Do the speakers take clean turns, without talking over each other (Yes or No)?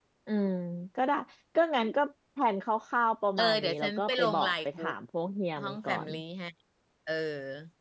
No